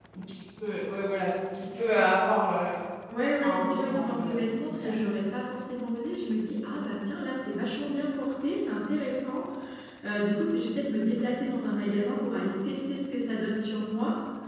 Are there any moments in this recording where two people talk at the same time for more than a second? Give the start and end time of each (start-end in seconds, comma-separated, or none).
3.4-4.9